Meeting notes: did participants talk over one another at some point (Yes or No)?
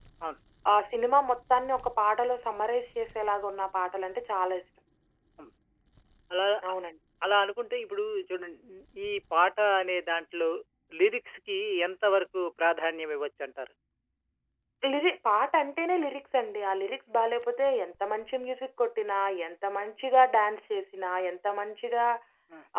No